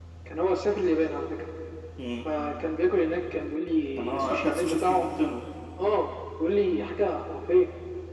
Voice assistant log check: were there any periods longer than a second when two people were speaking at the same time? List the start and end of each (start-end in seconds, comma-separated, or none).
4.0-5.2